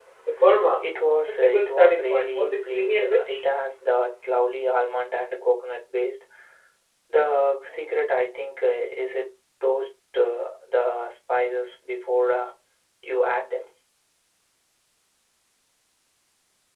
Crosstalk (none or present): present